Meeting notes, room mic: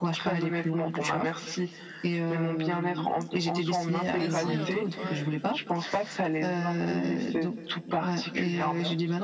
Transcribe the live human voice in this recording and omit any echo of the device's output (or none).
Bien sûr, ouais.